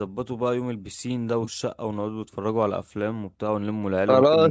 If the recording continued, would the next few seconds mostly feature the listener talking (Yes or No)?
Yes